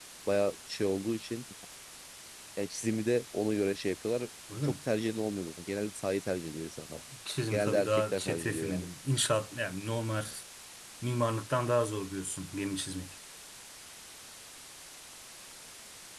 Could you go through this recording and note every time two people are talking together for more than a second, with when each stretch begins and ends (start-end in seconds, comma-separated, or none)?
7.5-8.9